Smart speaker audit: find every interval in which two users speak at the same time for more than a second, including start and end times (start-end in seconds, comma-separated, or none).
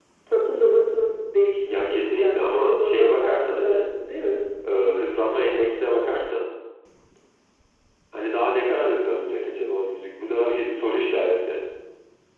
1.7-3.7